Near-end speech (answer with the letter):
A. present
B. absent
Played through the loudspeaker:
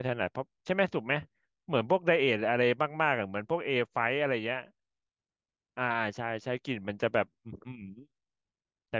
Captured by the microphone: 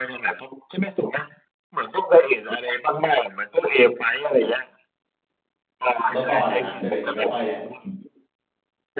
A